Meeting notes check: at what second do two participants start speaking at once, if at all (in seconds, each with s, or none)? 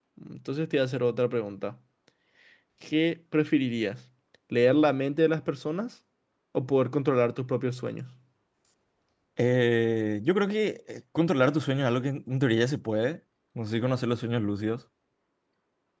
none